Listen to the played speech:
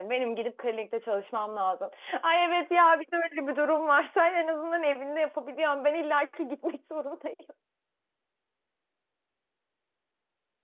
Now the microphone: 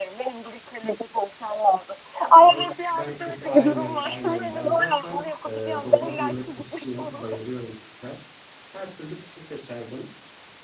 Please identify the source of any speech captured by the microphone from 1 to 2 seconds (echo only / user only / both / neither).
echo only